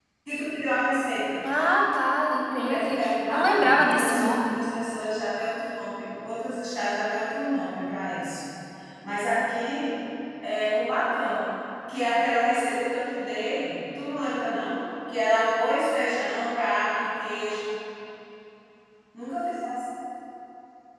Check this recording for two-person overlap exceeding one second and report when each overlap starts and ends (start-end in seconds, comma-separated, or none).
2.7-4.6